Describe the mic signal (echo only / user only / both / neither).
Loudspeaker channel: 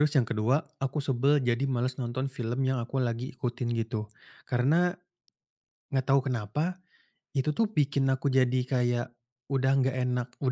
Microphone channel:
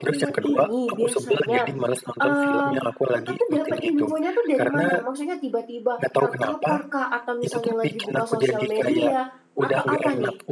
both